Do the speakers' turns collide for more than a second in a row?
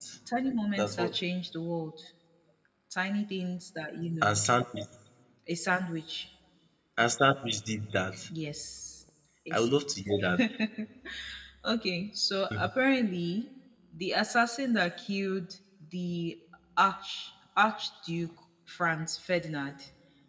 No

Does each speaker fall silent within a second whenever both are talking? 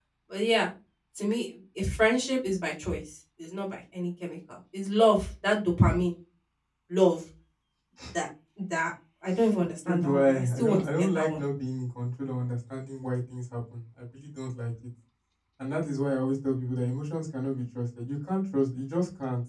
No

